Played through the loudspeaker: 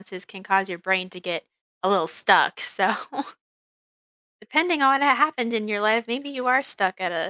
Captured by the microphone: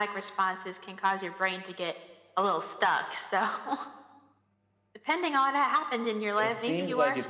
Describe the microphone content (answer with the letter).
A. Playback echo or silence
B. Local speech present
B